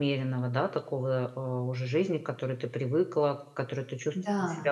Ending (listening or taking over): listening